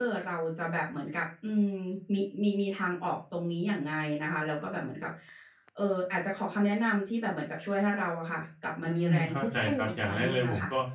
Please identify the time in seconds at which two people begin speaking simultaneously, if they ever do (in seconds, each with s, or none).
8.8 s